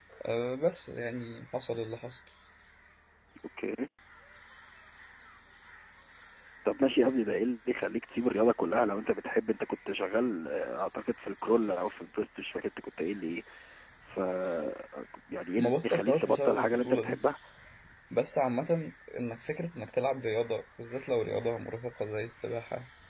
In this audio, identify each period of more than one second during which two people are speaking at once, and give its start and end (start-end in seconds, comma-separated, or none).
15.6-17.2